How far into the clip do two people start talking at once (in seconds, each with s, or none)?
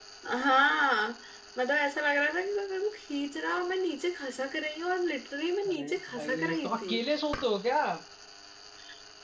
5.6 s